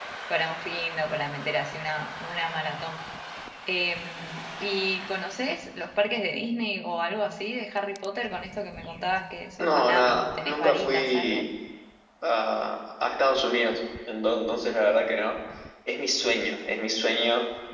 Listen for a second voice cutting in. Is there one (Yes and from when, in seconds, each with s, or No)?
Yes, from 9.6 s